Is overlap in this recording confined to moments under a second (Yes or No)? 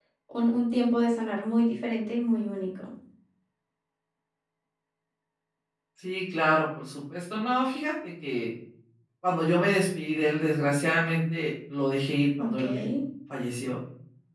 Yes